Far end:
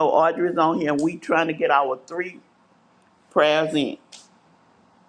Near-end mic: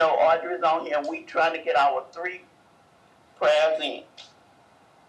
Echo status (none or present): present